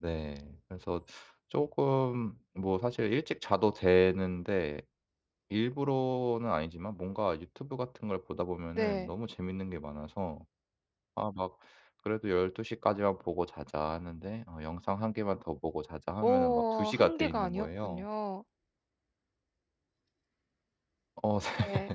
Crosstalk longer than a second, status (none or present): present